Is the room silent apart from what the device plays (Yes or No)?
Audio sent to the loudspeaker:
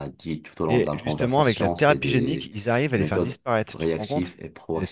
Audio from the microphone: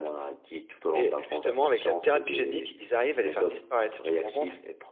Yes